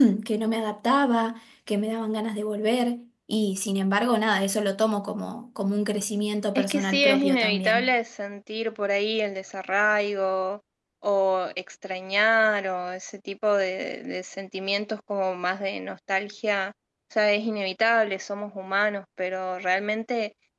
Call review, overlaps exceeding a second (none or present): present